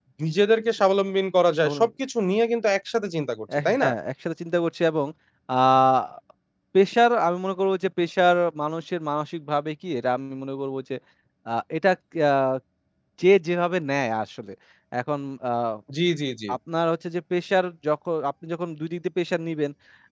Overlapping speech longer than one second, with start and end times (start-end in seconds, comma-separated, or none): none